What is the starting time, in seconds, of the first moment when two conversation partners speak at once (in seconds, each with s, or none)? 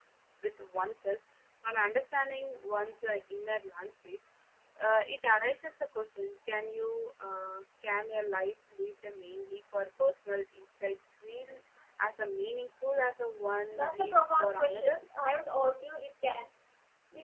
13.7 s